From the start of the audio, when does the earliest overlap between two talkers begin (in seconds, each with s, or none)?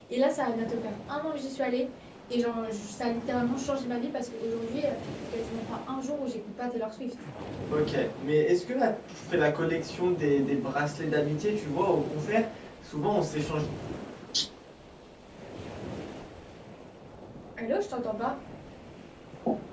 none